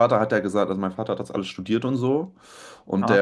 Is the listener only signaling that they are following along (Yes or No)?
Yes